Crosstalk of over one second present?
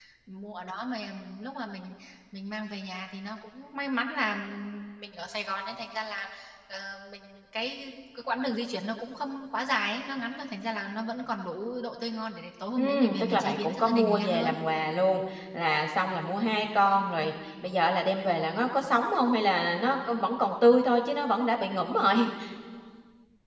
Yes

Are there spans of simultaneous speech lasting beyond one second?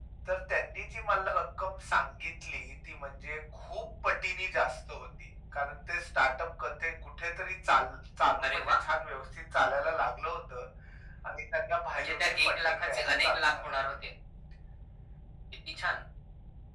Yes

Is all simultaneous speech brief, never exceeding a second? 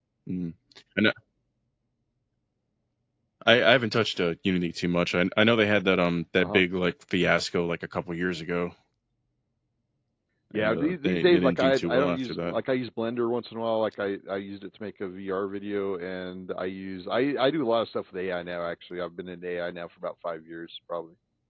No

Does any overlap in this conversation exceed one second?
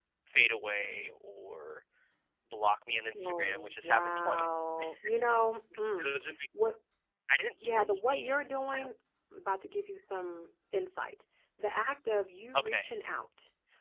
Yes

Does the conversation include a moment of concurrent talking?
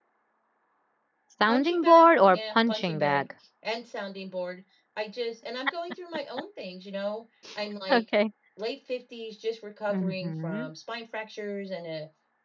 Yes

